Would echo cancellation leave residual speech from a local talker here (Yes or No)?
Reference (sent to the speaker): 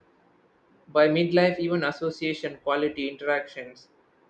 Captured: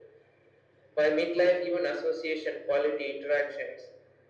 No